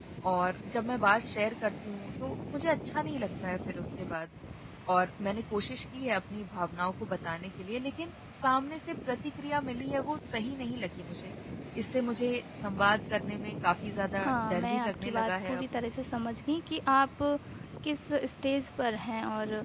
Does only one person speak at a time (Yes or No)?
No